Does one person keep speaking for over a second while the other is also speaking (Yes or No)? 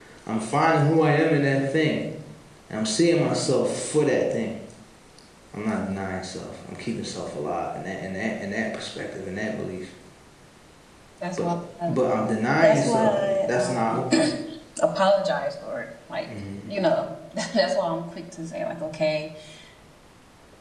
Yes